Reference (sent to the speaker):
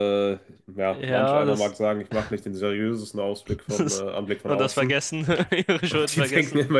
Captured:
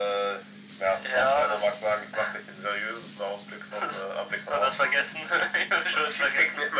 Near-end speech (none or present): none